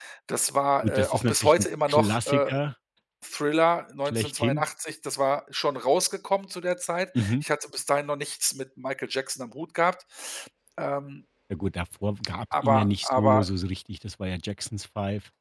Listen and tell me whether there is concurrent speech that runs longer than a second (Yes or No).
Yes